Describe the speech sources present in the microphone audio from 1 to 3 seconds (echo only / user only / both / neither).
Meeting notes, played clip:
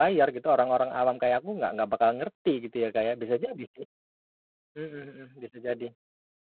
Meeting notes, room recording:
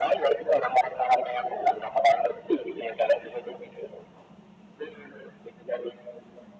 echo only